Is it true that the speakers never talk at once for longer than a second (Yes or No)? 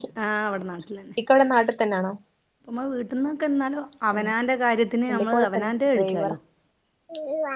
No